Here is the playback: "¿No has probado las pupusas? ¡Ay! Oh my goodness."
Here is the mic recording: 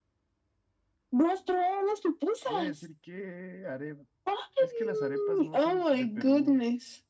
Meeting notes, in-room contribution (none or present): present